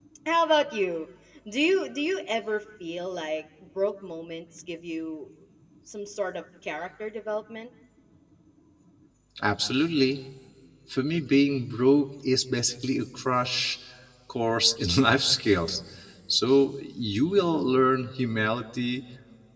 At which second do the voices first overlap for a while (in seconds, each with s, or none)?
none